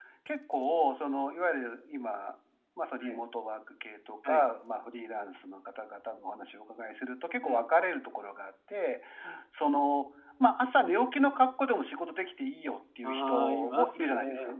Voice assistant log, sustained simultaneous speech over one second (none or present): present